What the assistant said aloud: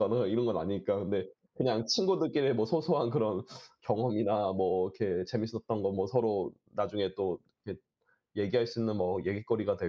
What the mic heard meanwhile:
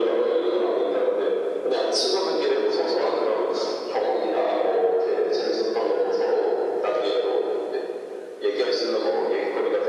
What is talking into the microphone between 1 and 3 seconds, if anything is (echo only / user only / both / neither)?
echo only